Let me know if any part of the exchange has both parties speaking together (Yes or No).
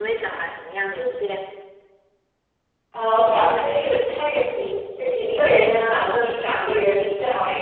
No